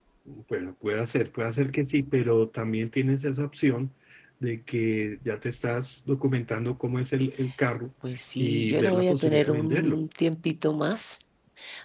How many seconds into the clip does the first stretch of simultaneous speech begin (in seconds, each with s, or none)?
8.4 s